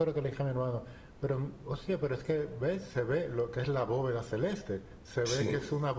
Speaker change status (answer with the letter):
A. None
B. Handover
A